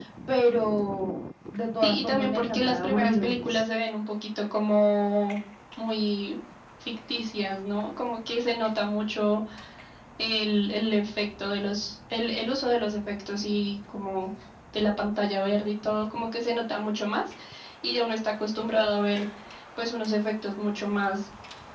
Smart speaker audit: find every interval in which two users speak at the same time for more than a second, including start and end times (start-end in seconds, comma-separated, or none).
1.8-3.6